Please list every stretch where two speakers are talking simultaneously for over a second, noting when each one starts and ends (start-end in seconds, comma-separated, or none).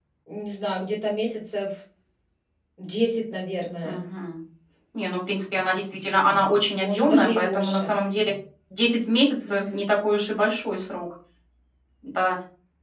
6.7-7.9